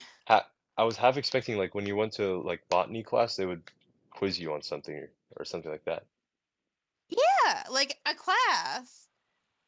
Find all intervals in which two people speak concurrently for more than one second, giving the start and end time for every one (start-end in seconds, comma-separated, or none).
none